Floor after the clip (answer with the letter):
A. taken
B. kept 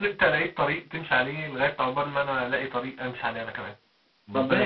A